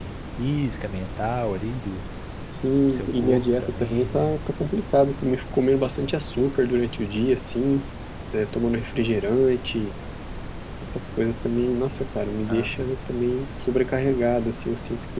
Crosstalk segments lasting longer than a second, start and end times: 2.9-4.4

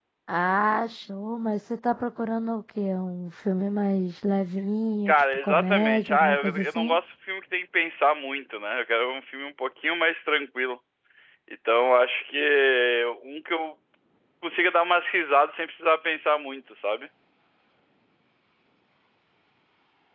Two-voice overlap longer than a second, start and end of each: 5.1-7.0

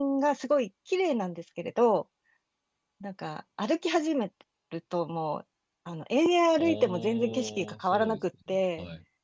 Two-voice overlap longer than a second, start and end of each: 6.6-8.2

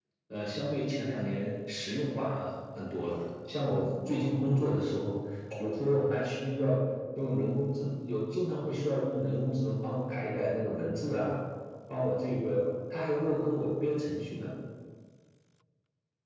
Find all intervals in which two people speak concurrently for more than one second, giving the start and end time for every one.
none

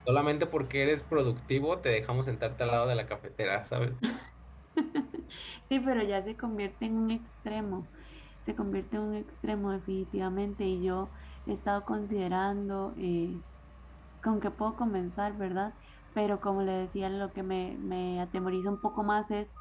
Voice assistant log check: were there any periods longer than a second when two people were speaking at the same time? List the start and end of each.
none

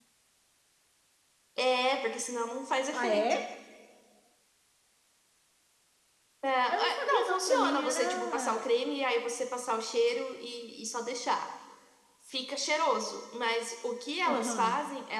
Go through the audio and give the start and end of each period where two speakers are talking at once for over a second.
6.7-8.6

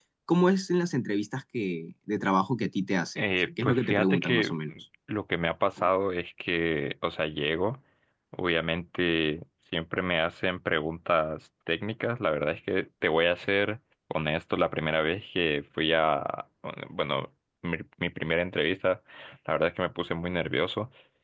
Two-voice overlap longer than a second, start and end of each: 3.2-4.5

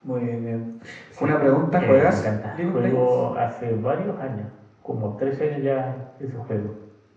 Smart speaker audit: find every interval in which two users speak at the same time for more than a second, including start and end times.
1.8-3.0

